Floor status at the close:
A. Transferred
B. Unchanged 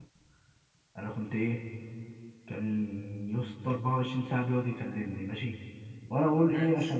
B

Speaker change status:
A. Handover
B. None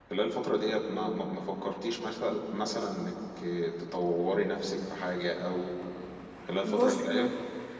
A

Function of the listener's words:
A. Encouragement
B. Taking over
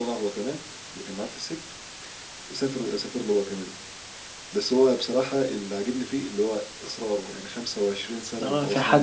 B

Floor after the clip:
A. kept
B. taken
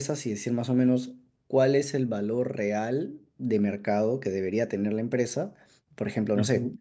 A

